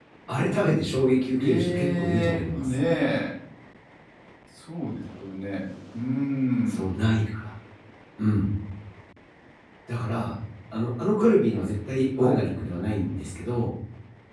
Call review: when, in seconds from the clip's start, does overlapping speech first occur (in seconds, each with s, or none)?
1.4 s